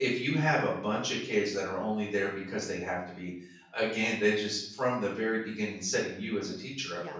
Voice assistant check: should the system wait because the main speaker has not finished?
Yes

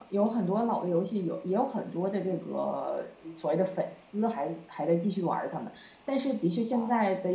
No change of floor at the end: Yes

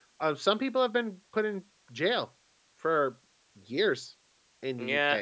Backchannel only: No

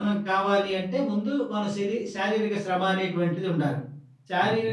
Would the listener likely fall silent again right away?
No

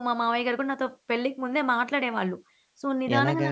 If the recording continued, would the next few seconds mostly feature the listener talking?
No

